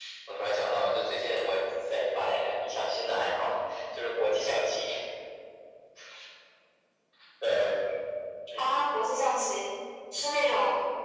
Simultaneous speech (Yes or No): No